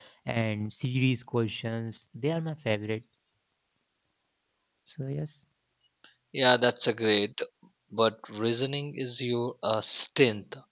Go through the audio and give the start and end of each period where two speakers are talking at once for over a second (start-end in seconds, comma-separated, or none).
none